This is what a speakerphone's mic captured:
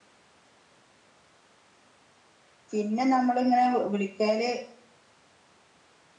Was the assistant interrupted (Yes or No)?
Yes